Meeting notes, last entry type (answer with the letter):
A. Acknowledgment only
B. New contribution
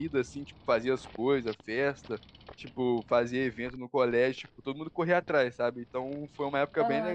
A